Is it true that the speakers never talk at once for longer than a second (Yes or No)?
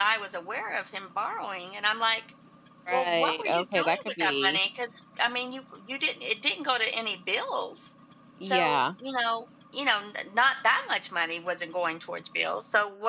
No